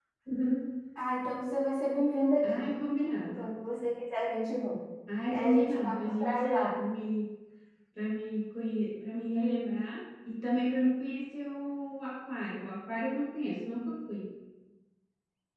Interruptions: present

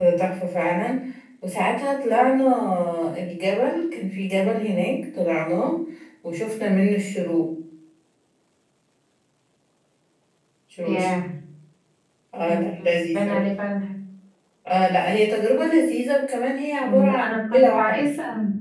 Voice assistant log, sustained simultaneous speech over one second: present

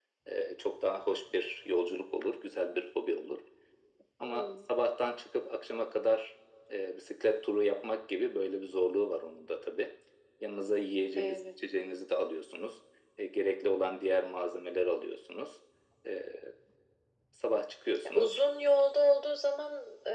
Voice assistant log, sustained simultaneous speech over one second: none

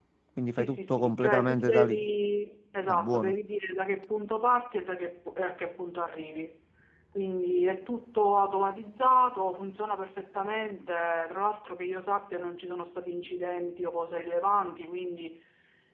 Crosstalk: present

